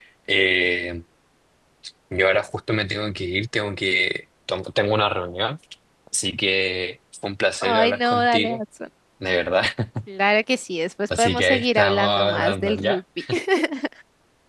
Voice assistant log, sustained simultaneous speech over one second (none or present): present